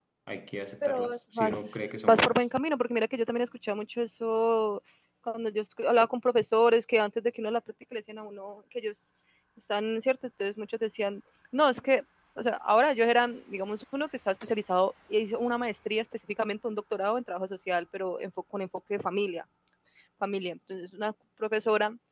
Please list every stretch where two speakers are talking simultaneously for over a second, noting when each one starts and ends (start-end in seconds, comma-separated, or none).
0.8-2.4